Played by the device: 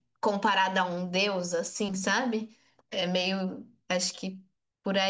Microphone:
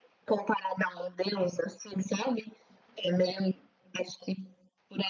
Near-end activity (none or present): none